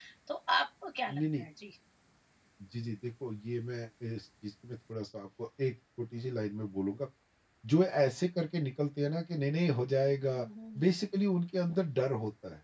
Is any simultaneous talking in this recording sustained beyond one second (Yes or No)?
No